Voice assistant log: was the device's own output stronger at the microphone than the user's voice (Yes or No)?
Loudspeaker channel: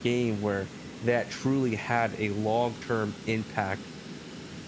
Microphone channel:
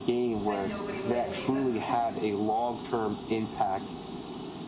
Yes